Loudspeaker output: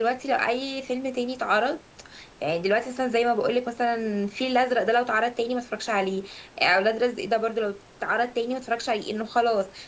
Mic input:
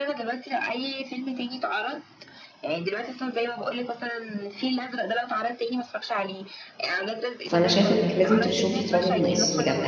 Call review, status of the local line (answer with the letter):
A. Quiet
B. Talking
B